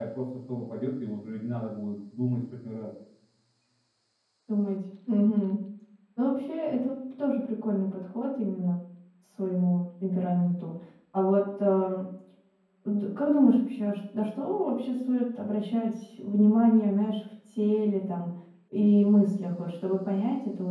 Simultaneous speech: No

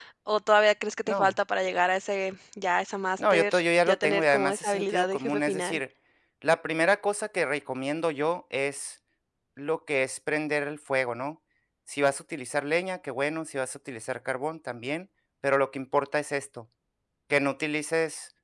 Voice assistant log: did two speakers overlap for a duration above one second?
Yes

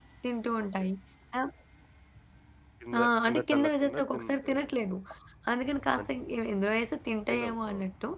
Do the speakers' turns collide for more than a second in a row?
Yes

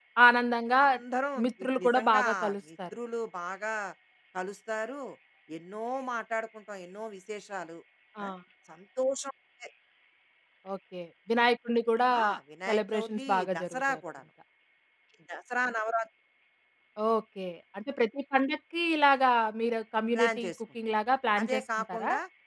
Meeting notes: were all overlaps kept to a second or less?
No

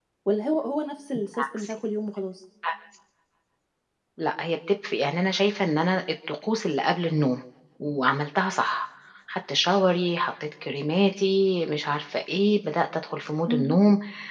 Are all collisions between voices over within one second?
Yes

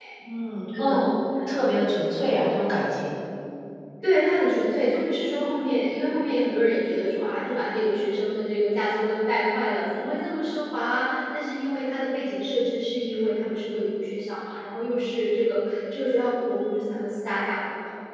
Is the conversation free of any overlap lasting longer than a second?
Yes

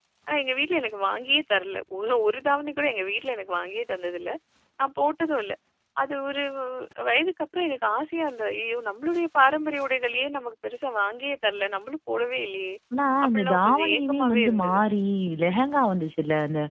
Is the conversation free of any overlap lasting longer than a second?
No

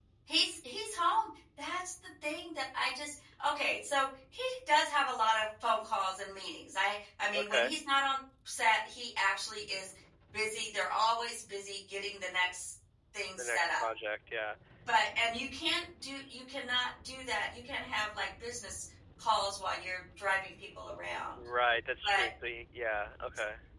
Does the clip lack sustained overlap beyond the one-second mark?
Yes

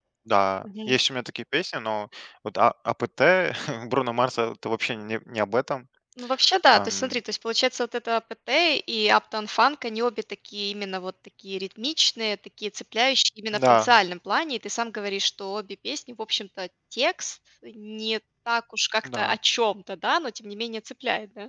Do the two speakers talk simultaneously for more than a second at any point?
No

